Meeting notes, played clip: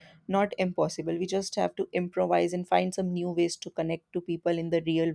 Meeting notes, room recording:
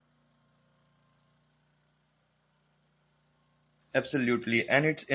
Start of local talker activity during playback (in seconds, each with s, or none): 4.0 s